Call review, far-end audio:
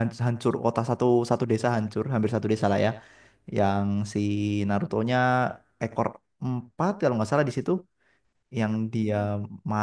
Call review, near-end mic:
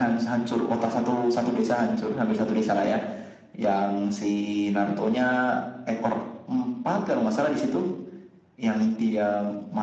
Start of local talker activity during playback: none

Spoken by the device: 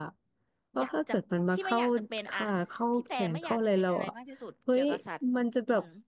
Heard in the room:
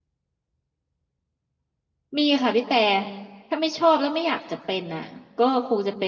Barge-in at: 2.2 s

